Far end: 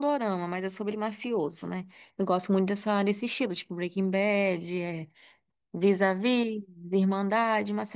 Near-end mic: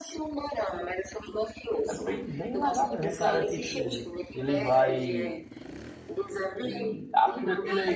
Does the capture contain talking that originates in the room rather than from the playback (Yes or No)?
Yes